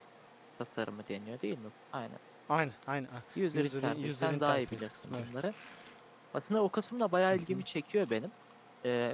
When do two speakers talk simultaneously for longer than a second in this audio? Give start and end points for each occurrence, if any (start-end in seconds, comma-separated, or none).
3.5-5.3